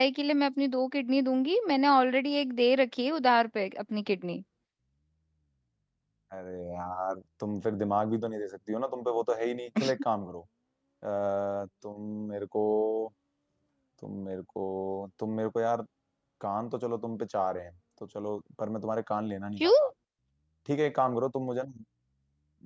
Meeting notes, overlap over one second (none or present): none